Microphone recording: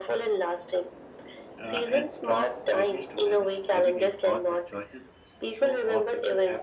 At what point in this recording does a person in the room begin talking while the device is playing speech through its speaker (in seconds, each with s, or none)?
1.6 s